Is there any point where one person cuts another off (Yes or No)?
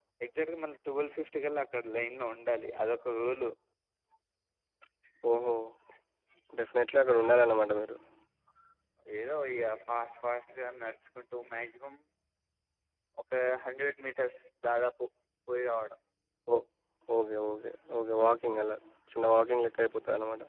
No